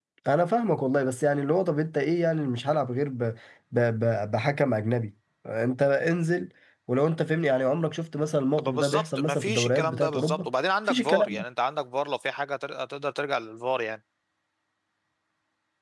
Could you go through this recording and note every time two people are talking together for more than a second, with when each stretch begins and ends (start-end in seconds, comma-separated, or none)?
8.6-10.5